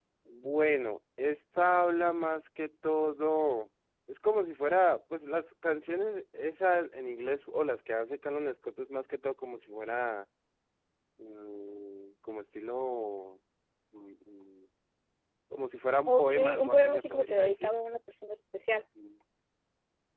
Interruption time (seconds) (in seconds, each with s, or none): 16.1 s